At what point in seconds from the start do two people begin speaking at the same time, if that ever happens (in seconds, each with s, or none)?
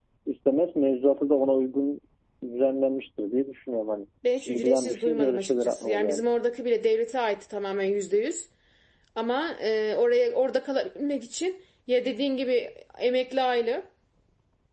4.2 s